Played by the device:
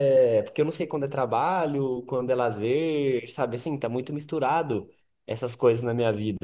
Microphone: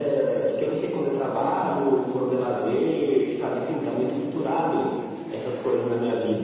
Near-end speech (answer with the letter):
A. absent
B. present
B